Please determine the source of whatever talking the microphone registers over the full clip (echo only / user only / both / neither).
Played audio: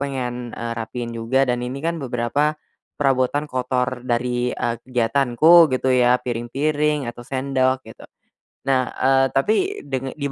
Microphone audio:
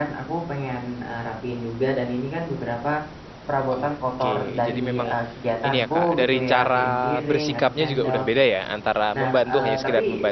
both